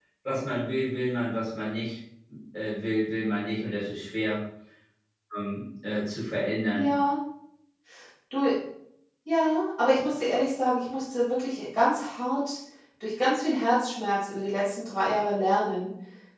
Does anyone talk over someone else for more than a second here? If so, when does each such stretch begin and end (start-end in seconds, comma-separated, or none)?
none